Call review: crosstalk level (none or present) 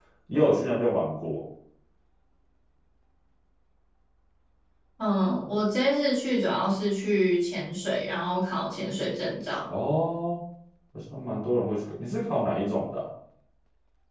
none